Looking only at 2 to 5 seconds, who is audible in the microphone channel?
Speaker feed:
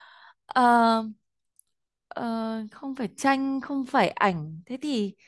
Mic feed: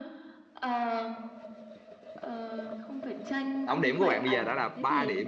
both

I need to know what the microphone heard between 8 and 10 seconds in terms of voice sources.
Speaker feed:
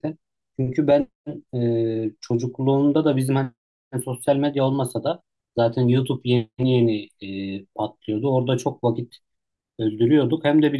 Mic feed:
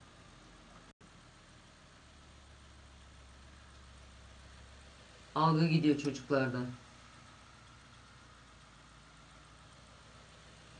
neither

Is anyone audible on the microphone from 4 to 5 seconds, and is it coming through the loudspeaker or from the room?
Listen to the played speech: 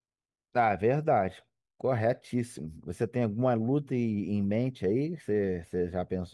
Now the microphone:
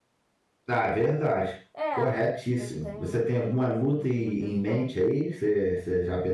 both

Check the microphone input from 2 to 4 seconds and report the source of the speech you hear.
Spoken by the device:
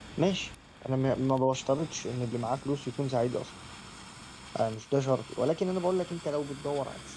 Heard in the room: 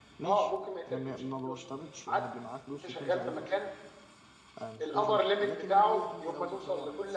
both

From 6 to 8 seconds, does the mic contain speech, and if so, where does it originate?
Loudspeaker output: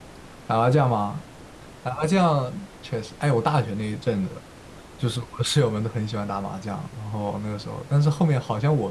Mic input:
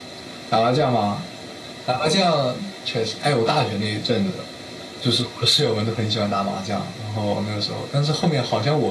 echo only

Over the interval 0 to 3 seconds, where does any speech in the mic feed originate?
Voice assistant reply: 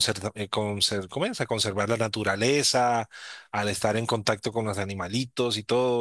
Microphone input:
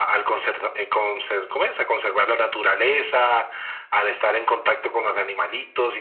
echo only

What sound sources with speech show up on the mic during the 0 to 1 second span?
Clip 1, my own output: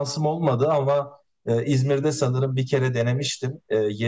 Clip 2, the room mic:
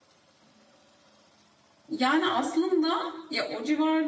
neither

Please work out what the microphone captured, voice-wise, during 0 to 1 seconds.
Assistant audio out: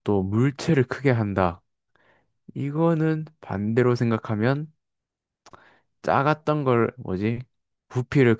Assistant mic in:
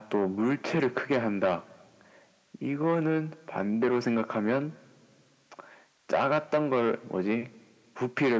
echo only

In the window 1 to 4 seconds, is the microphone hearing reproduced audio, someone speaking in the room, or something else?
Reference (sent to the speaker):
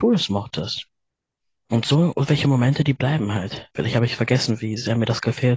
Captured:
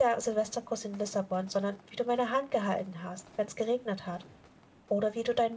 user only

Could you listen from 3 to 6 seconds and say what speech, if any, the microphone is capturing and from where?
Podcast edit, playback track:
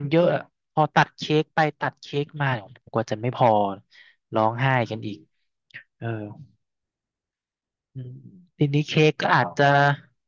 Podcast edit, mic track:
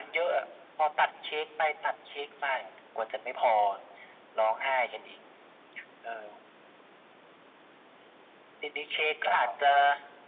echo only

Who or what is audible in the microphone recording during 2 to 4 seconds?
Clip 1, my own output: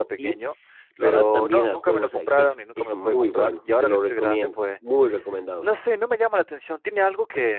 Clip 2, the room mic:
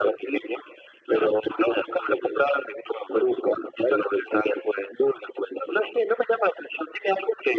echo only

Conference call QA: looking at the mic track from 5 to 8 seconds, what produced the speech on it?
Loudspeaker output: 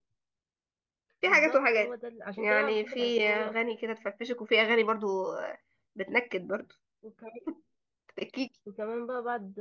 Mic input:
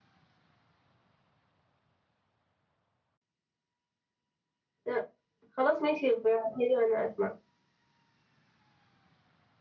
user only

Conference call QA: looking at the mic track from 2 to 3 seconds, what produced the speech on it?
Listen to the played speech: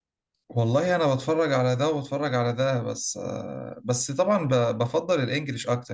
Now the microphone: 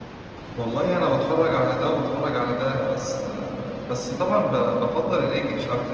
echo only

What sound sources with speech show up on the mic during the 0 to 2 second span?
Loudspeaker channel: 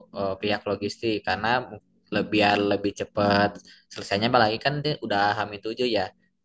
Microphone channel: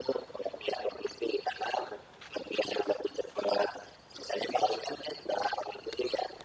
echo only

